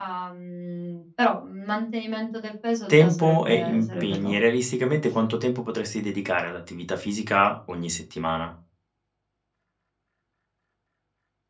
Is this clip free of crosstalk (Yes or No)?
No